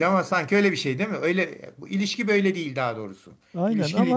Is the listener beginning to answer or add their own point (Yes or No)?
Yes